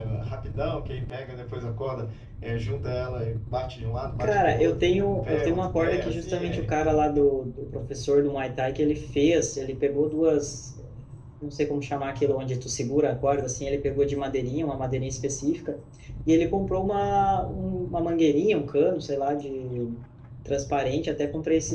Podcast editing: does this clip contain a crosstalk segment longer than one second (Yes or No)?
Yes